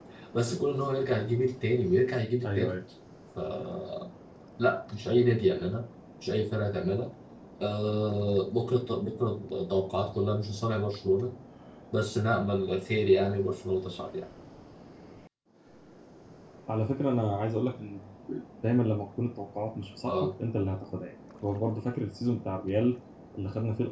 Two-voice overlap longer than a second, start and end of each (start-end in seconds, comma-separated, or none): none